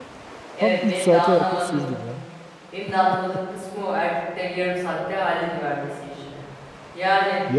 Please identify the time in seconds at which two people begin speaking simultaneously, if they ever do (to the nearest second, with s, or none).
1 s